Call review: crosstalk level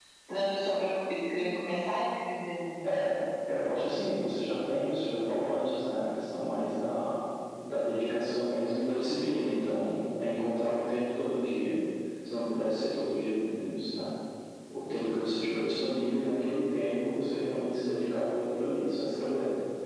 none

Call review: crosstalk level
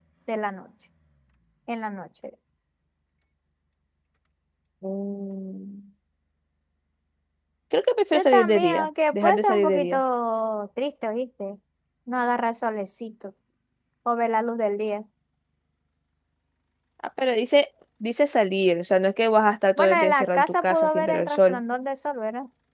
present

